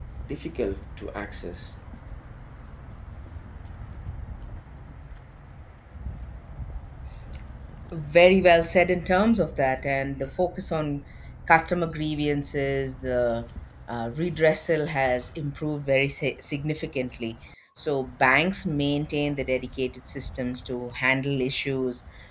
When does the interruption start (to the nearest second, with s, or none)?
none